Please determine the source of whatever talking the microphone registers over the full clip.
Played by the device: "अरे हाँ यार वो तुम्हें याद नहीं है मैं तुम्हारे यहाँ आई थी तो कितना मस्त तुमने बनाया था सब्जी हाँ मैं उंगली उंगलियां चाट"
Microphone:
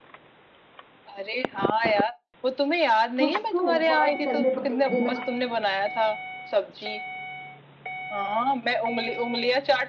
both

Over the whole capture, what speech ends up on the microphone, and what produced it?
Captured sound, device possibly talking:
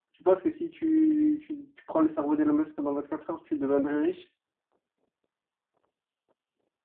user only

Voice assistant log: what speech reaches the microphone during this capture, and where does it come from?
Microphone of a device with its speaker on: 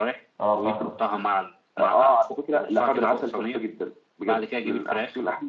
both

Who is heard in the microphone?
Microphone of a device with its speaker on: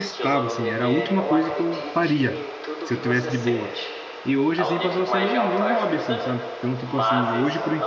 both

